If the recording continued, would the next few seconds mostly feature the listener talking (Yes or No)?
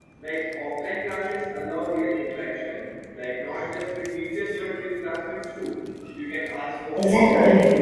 No